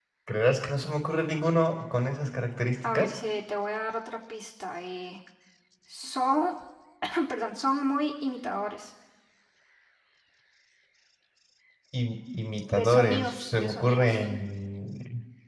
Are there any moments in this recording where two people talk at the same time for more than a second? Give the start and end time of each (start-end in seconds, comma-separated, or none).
12.7-14.1